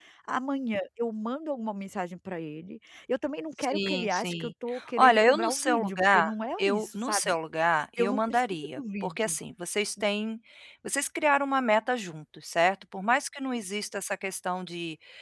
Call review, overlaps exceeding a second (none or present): present